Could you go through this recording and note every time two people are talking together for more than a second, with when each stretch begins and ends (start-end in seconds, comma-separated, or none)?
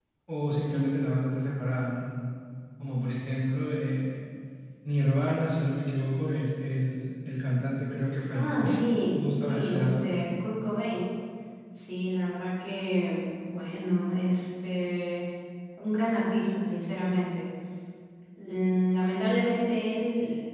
8.3-10.1